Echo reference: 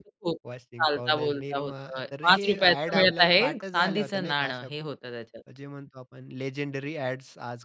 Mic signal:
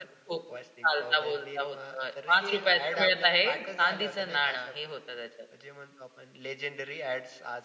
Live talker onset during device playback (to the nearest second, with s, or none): none